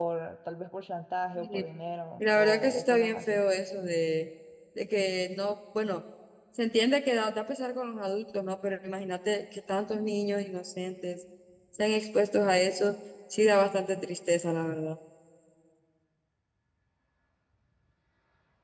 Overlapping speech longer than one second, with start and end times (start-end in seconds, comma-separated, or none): 2.2-3.4